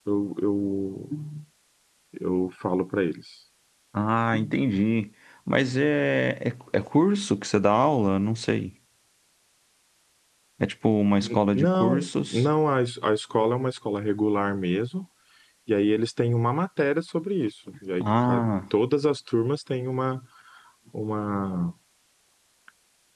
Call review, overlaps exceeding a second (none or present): present